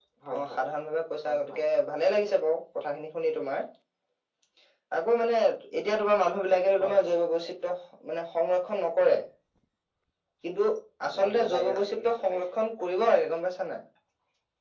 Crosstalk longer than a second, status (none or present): present